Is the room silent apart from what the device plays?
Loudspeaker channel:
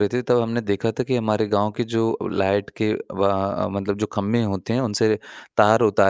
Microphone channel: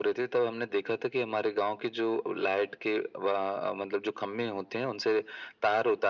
Yes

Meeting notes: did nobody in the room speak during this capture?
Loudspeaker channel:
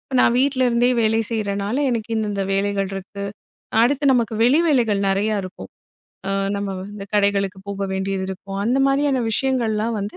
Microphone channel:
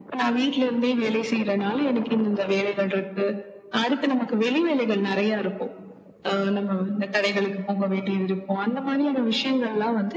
Yes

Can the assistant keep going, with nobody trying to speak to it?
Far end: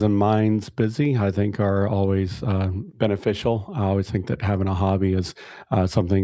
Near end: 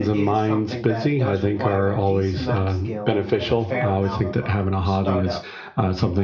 No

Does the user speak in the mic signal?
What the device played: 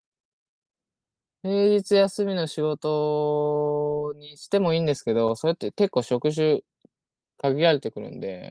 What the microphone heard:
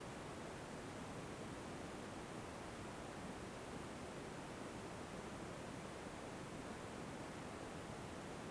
No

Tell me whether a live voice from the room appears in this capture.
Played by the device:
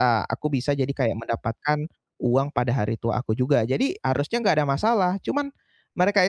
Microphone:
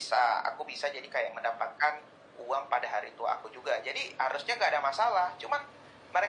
No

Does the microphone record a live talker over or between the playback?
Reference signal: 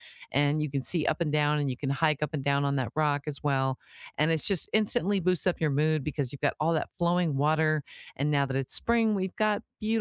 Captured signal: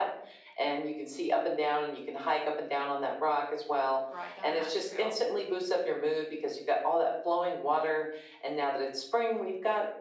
Yes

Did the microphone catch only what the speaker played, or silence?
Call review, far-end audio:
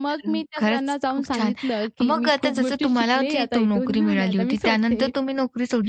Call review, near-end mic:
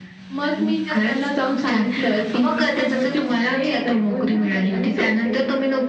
Yes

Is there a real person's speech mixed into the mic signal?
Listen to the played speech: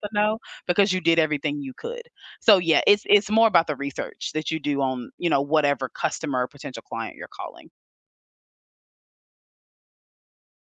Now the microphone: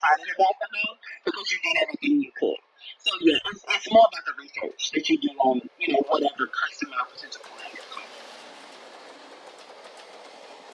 No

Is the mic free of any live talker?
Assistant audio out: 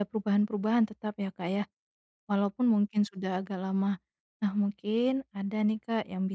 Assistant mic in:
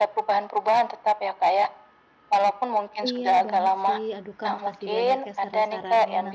No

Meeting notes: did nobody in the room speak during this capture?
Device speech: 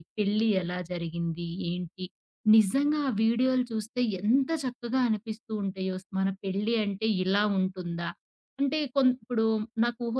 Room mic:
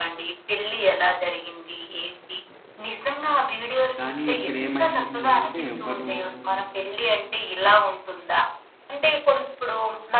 No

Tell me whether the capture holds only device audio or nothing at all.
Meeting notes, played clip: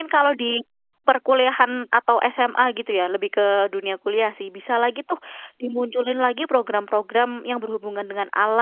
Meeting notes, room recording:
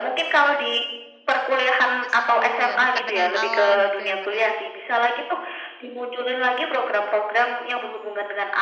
No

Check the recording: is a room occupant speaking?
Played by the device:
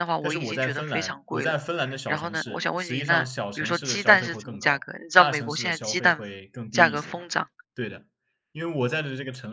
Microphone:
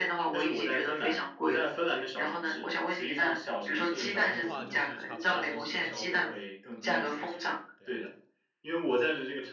Yes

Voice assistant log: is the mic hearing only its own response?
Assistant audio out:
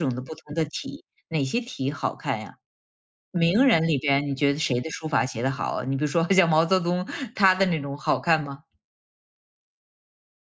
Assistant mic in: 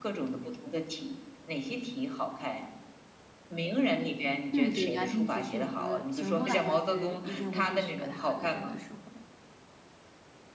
No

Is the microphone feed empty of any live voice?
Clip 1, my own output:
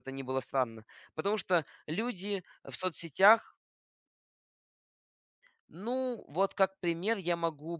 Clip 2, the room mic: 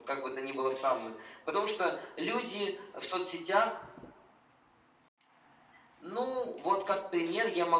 Yes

